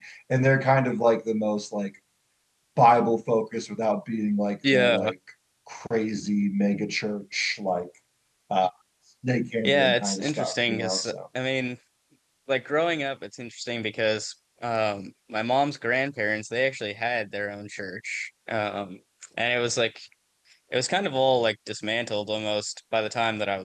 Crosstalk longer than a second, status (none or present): present